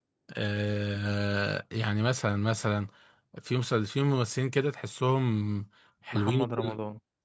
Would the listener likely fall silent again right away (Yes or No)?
Yes